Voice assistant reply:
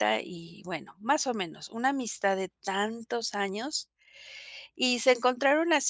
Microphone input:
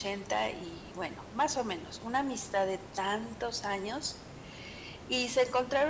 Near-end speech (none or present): none